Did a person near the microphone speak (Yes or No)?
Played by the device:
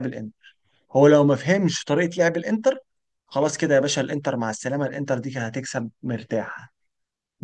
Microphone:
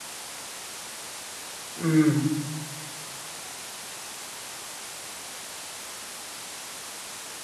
Yes